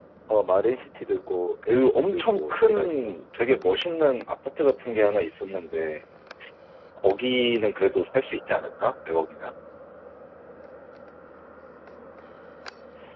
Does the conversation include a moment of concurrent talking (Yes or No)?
Yes